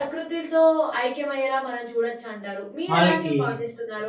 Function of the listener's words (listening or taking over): listening